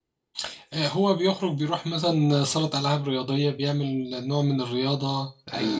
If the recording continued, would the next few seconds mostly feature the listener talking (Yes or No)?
Yes